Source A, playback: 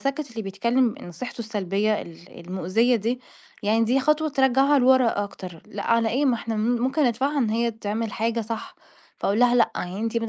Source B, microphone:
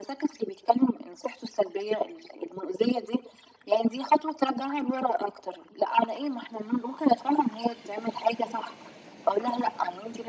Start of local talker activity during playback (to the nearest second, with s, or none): none